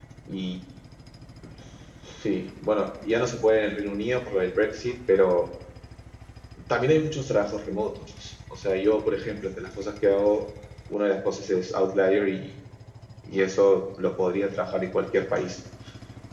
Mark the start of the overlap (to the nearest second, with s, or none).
none